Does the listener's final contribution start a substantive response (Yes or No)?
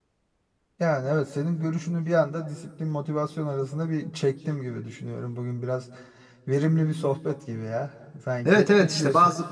Yes